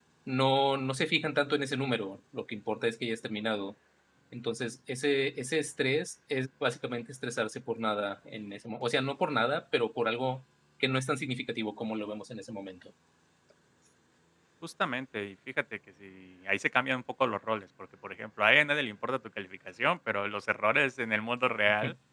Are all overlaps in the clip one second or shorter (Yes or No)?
Yes